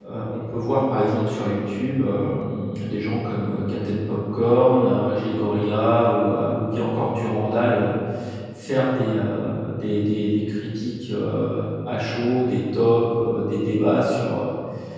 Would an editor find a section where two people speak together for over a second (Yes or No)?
No